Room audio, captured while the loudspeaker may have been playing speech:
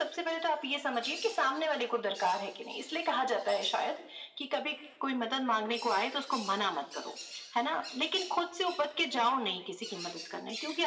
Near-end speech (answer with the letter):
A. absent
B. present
A